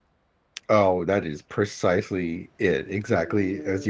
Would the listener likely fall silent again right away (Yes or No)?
No